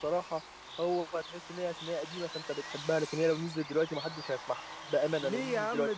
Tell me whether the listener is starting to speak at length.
Yes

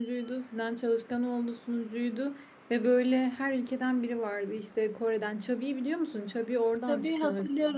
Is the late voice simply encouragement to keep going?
No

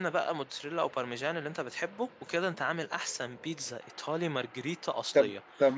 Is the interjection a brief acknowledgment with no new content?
No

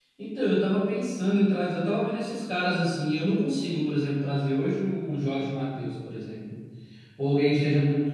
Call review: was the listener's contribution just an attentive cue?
Yes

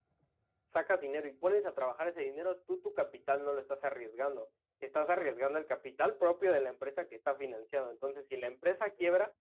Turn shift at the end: No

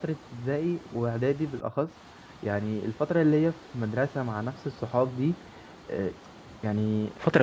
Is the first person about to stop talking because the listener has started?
No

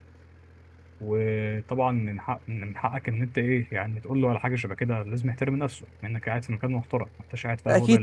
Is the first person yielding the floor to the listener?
Yes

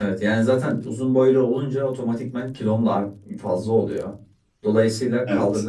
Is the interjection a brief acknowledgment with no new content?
Yes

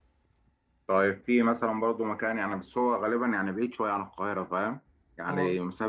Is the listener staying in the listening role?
Yes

